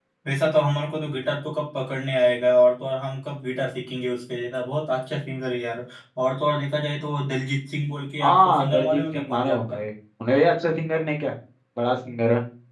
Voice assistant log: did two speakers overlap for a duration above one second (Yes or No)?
Yes